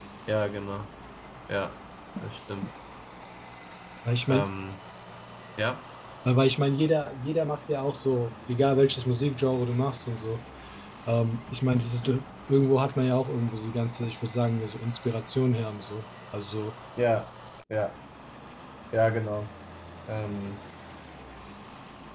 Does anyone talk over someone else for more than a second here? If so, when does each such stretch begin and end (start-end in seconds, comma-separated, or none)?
none